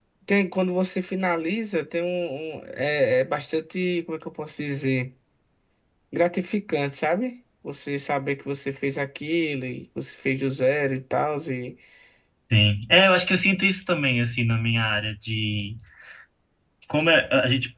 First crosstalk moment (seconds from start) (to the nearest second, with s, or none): none